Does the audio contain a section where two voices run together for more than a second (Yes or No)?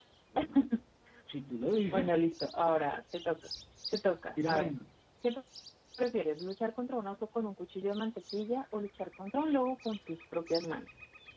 No